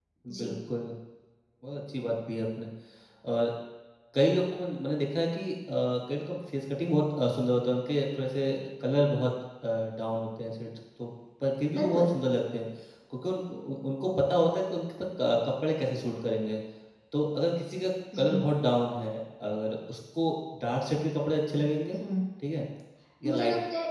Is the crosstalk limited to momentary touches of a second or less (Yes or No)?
Yes